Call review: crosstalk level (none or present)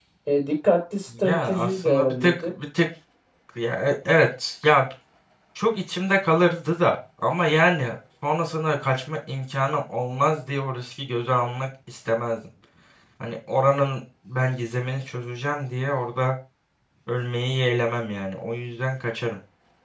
present